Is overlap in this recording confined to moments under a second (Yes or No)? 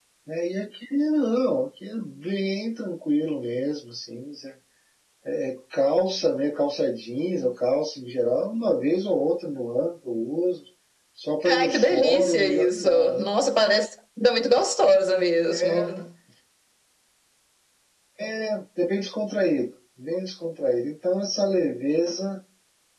No